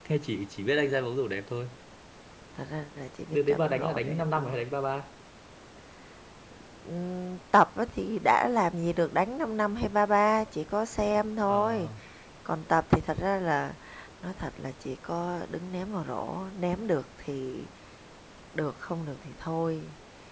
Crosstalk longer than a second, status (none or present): present